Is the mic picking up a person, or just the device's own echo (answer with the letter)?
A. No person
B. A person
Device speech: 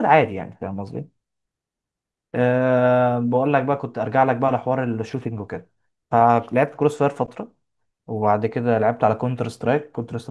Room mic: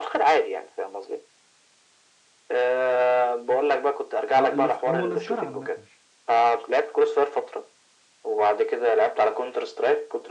B